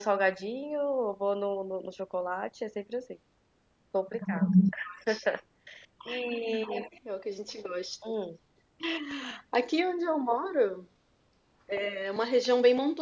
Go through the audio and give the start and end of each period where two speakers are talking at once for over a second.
none

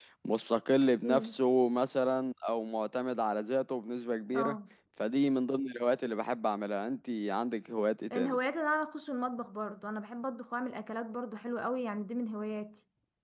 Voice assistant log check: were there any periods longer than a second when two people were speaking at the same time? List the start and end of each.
none

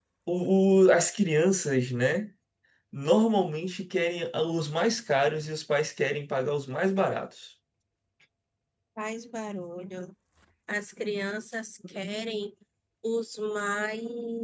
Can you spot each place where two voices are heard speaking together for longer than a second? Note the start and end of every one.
none

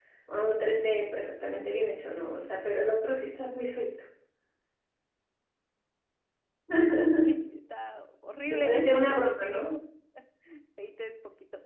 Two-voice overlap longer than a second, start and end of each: 8.5-9.8

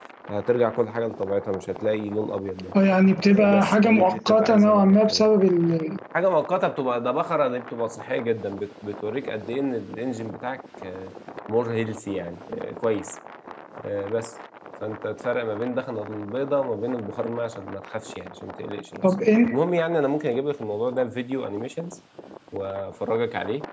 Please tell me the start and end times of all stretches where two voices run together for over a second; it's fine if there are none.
3.3-5.3

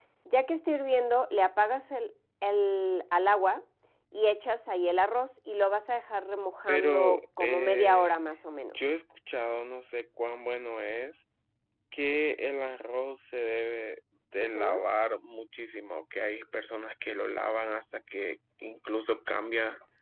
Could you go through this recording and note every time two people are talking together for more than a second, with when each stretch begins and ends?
6.7-8.1

